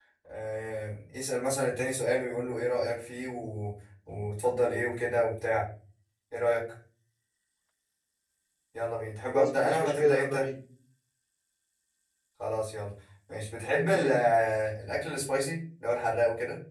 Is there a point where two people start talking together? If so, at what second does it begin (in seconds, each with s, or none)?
9.3 s